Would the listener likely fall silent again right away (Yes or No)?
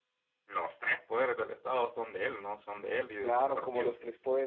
No